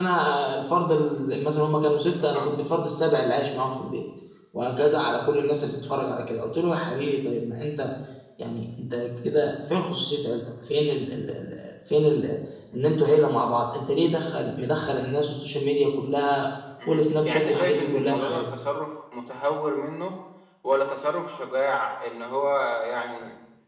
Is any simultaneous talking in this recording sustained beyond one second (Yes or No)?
Yes